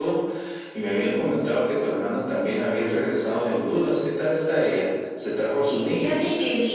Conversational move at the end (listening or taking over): taking over